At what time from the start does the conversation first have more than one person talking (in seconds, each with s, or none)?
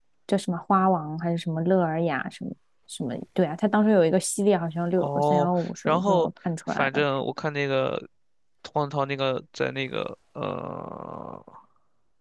5.0 s